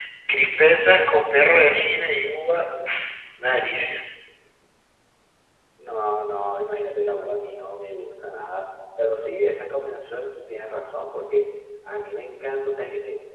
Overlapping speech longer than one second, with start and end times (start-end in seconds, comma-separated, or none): none